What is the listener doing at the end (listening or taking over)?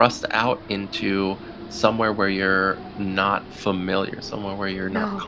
listening